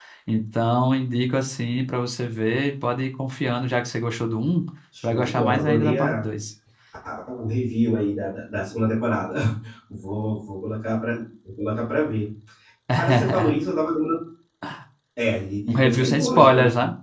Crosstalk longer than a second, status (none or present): present